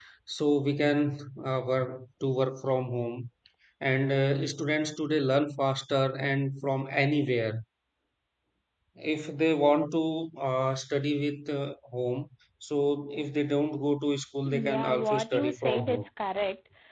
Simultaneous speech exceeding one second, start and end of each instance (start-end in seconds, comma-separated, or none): 14.4-16.1